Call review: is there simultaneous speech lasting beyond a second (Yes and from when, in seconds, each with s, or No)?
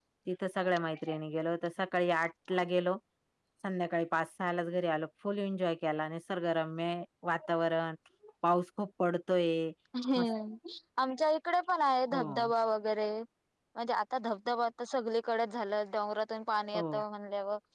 No